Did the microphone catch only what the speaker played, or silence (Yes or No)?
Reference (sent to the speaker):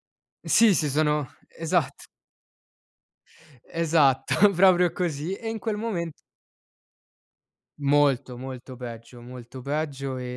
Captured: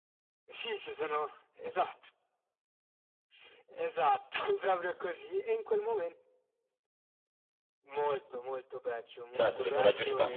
No